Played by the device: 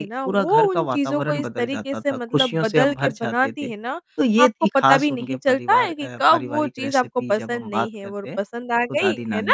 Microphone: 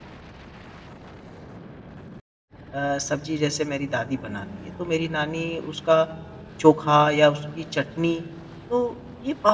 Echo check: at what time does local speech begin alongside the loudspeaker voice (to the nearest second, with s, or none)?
3 s